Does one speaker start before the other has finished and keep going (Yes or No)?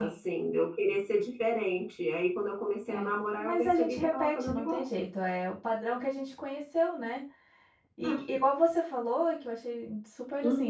Yes